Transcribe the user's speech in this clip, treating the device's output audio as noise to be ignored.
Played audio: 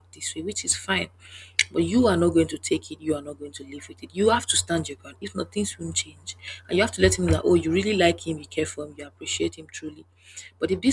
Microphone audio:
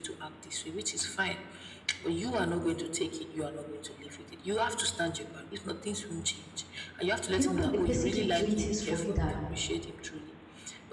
you know when the person keep doing things for you that

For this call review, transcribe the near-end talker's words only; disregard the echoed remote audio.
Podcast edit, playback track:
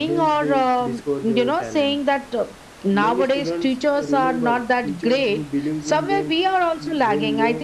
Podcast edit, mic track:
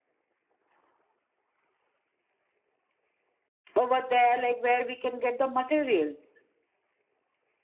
over there like where we can get the materials

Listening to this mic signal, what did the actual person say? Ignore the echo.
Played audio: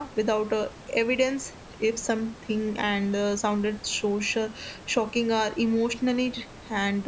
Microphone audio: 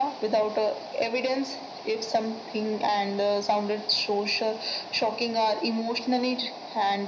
none

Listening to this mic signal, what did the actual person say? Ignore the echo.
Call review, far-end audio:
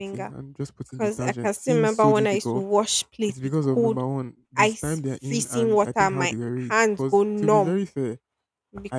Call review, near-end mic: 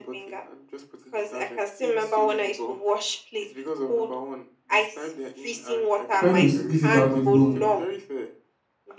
Trying to squeeze it out alone

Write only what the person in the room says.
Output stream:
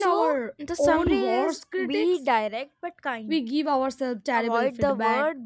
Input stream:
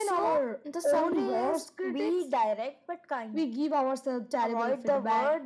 none

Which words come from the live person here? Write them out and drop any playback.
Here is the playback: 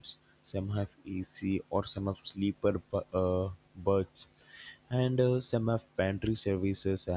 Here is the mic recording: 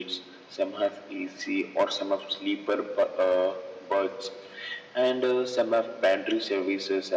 none

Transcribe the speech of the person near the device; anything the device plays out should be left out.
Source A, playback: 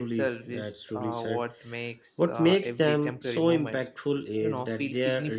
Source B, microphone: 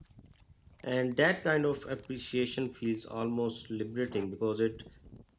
And that kind of appreciation feels almost liberating because it

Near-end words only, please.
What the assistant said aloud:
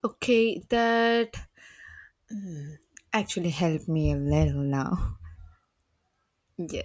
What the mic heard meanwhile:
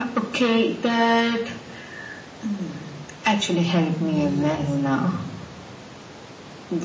Yes.

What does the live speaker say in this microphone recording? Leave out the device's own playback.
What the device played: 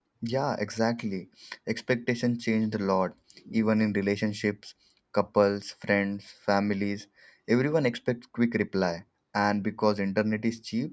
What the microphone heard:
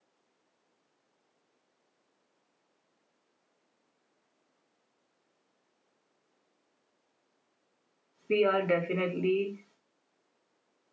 We are definitely

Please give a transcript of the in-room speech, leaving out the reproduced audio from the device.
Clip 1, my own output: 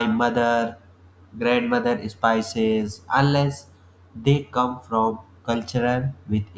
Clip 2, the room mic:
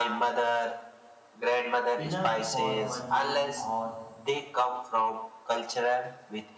enough for one meal or

